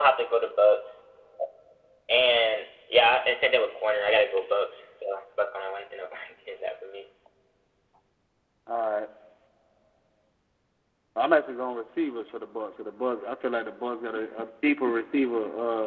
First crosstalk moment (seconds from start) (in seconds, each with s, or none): none